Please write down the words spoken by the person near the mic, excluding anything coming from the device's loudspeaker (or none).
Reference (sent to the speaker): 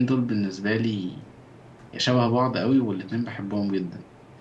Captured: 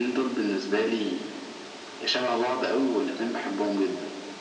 none